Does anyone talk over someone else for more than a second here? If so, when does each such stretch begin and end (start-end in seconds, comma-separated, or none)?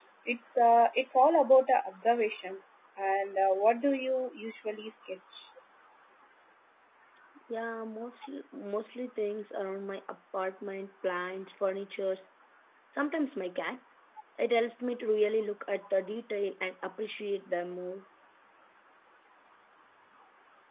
none